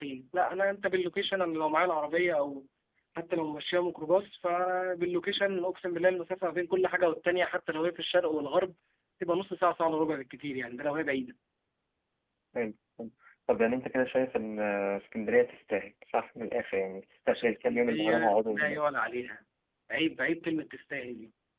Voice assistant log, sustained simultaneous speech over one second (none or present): present